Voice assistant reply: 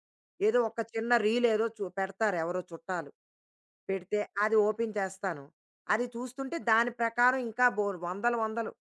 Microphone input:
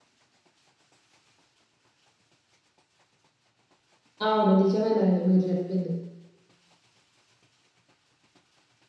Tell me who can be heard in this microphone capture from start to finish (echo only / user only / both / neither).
user only